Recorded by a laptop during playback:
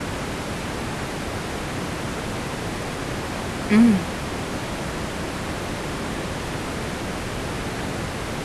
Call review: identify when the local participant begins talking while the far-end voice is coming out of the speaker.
3.7 s

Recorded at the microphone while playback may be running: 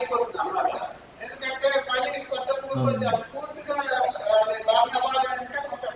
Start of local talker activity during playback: 2.8 s

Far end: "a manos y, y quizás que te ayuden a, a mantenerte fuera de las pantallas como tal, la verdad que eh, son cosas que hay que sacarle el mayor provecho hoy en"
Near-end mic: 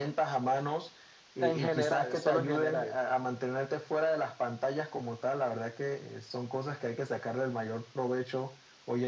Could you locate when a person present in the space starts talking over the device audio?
1.4 s

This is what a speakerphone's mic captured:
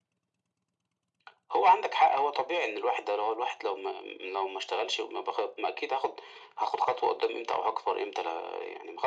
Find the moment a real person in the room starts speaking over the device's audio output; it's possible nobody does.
none

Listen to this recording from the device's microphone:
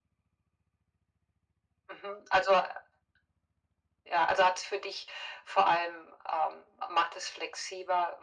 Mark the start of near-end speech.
none

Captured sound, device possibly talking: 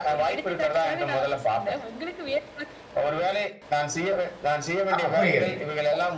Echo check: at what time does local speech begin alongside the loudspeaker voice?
5.0 s

